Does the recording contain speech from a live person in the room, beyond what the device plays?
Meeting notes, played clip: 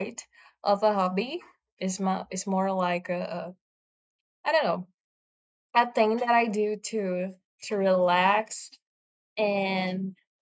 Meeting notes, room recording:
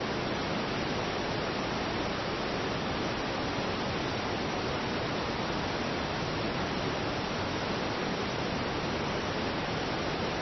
No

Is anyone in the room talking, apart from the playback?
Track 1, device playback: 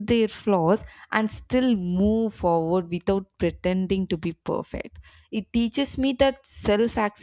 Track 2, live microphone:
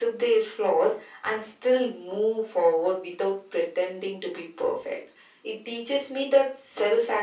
No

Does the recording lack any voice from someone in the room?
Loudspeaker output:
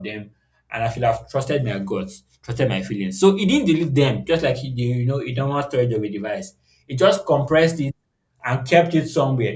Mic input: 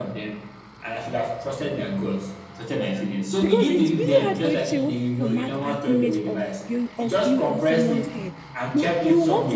No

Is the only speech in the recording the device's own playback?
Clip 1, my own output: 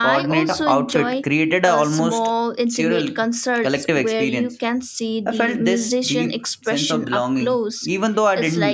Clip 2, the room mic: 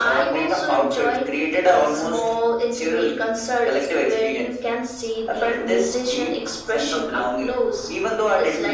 Yes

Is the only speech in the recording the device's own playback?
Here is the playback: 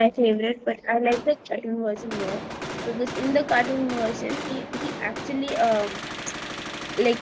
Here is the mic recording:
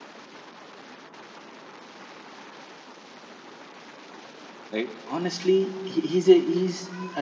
No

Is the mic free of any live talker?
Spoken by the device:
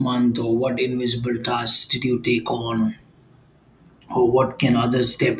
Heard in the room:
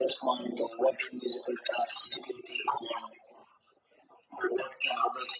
Yes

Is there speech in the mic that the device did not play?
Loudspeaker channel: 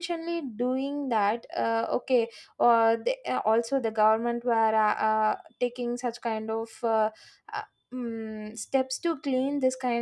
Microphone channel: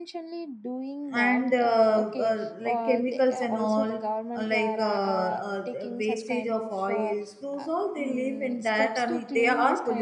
Yes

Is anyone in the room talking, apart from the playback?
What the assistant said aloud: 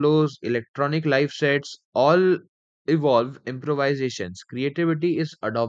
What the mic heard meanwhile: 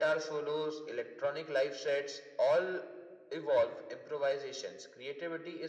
No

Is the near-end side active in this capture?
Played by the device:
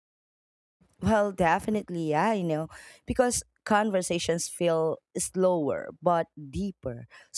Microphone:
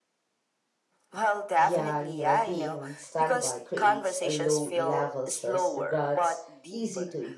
Yes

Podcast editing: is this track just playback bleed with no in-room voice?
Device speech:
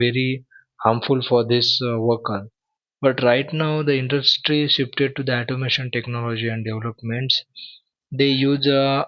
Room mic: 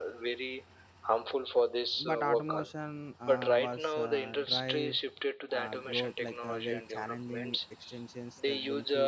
No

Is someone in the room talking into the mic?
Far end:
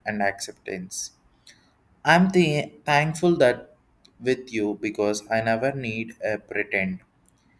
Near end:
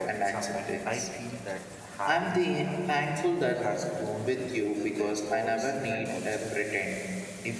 Yes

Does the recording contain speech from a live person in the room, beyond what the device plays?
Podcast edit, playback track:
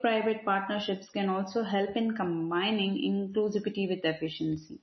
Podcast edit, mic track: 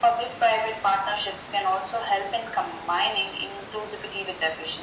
No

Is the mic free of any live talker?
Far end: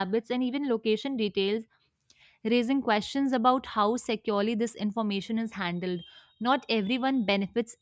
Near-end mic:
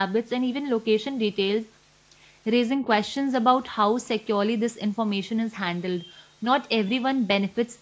Yes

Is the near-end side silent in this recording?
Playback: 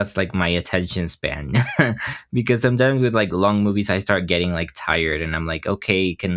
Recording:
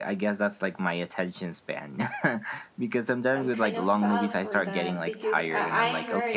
No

